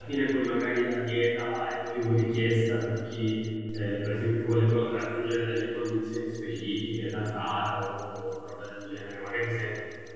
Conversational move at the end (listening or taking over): listening